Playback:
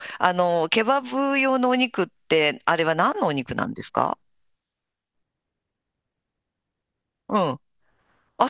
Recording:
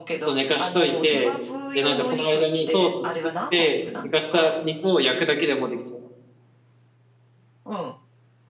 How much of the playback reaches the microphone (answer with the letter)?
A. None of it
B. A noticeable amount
B